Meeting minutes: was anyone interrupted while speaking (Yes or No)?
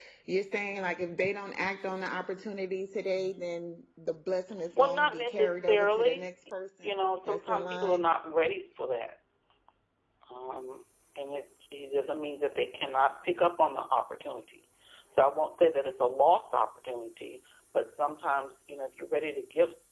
Yes